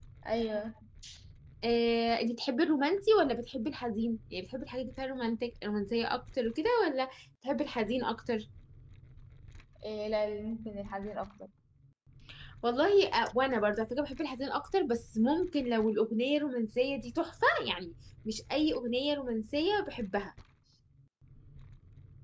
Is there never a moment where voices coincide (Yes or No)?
Yes